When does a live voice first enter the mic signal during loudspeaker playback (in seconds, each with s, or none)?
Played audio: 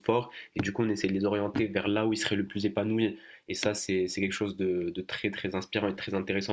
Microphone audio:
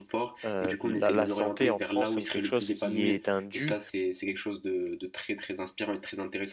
0.4 s